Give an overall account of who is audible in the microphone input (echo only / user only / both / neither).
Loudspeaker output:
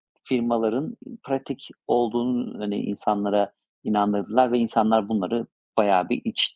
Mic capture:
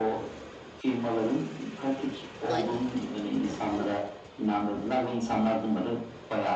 both